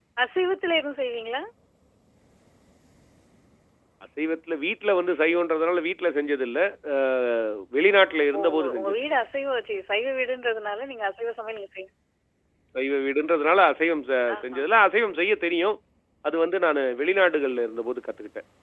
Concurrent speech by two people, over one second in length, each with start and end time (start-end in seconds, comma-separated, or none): 7.9-9.2